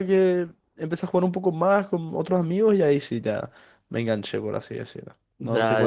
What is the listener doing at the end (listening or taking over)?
taking over